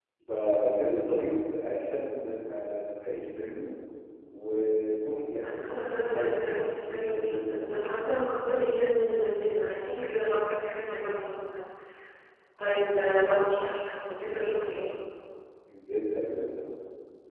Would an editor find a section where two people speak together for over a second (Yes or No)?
Yes